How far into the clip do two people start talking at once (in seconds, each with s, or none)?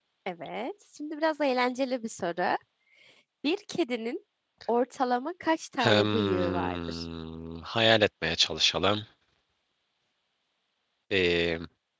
5.8 s